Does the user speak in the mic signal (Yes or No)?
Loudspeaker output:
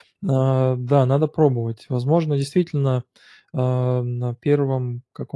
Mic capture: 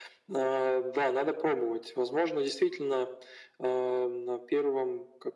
No